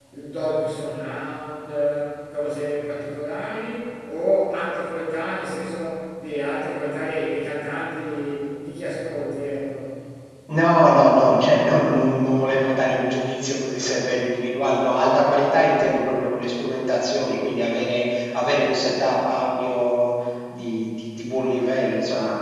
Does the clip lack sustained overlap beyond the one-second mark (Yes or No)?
Yes